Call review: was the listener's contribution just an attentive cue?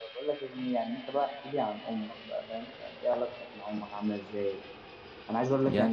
Yes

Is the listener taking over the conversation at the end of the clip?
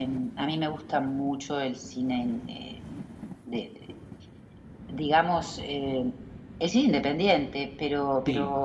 No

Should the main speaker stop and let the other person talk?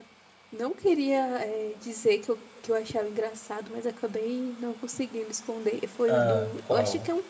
No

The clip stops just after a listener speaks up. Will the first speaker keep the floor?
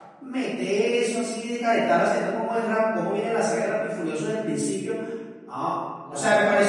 Yes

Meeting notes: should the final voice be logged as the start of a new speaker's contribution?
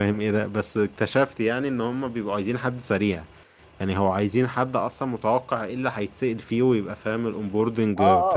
Yes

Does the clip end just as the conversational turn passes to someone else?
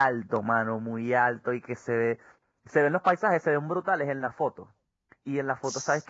No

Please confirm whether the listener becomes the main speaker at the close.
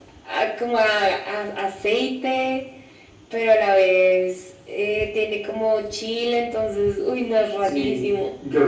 Yes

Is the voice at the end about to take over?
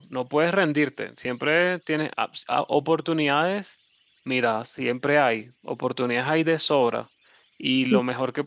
No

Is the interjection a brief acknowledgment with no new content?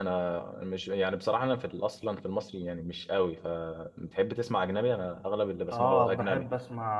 No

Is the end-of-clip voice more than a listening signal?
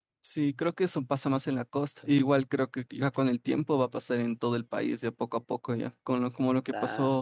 No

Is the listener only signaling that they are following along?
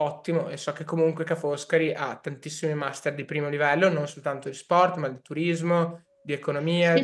Yes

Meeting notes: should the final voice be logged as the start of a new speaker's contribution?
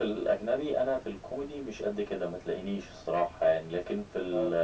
No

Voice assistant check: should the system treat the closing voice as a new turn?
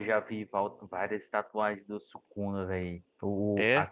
No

